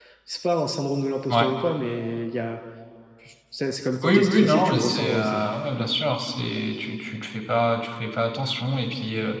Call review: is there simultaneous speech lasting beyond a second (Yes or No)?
Yes